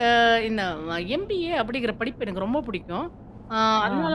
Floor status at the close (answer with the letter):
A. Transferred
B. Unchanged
B